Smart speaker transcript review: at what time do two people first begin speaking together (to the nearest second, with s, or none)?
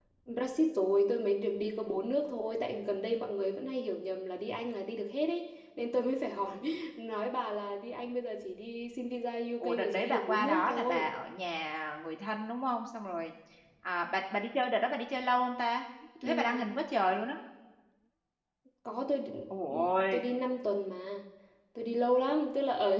10 s